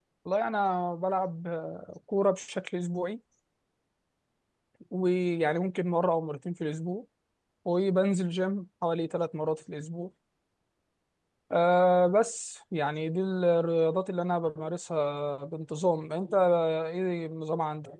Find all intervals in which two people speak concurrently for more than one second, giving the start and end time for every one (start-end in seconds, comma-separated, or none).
none